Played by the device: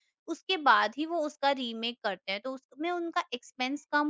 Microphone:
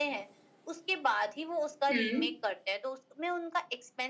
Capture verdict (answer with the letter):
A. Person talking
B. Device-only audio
A